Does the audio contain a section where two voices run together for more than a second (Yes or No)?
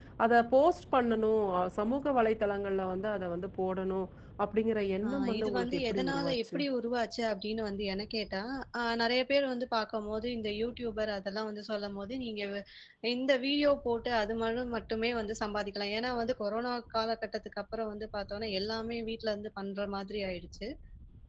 Yes